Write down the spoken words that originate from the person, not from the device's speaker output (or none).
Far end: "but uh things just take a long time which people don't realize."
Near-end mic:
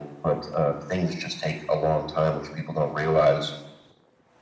none